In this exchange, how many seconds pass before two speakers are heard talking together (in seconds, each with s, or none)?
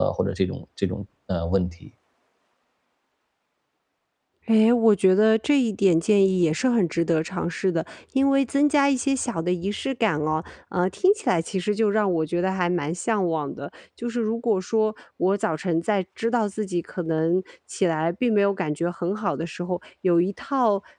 none